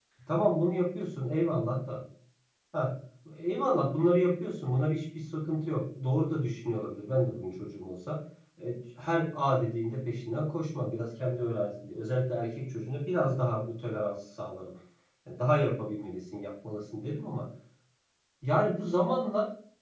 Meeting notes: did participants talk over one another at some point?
No

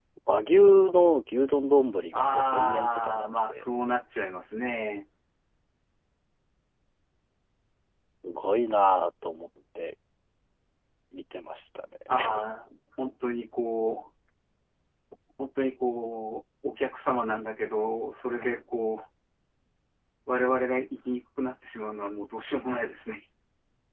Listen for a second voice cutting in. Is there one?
Yes, from 2.1 s

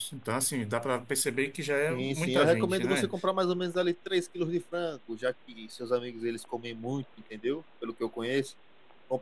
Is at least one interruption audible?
Yes, from 1.9 s

